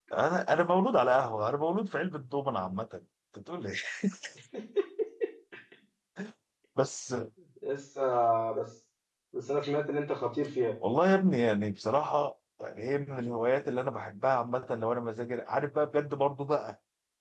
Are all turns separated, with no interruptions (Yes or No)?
Yes